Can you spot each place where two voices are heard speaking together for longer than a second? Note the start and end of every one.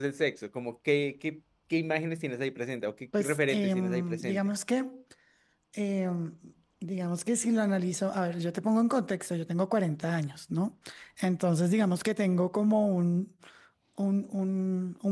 3.2-4.4

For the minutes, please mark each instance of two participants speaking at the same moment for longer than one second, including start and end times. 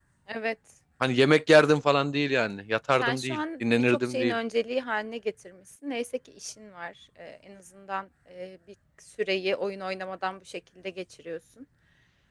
3.0-4.4

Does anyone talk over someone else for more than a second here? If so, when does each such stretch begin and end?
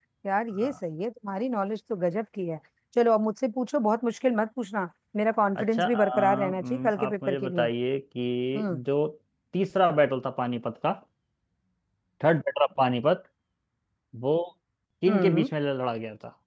5.6-7.6

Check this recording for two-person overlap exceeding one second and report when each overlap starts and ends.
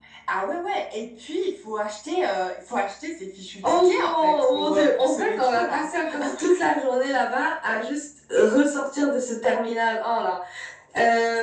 3.6-5.9

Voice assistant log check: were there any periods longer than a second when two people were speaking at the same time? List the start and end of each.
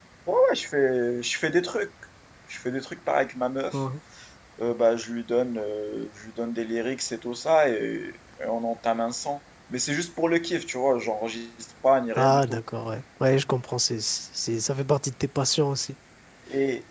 none

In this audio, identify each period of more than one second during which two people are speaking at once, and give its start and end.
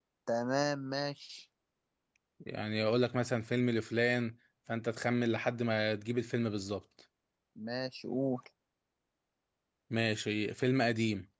none

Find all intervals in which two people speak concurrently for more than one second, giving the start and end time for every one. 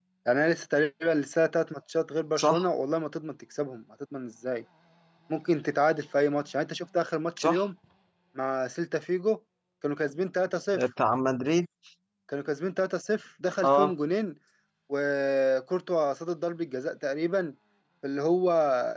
none

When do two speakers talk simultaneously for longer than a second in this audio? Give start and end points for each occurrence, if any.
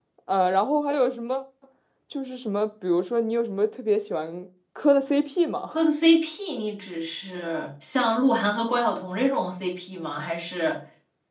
none

